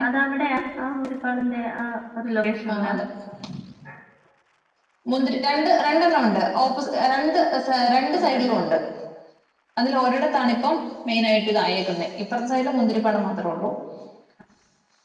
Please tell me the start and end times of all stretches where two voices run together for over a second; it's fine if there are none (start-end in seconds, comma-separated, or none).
none